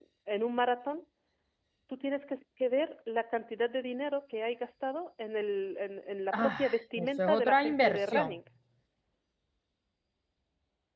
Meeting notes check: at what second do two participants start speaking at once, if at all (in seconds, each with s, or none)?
6.3 s